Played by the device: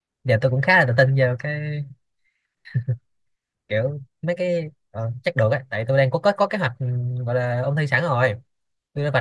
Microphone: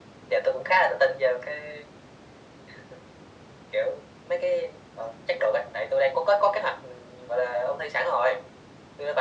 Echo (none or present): present